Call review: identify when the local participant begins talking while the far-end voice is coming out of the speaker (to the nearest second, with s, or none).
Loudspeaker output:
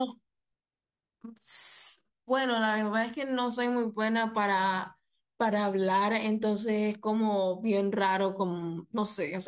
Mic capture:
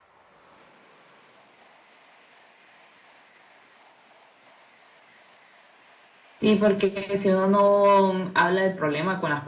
6 s